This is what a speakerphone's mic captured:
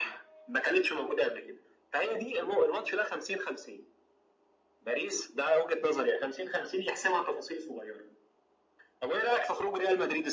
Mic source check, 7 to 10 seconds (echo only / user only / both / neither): echo only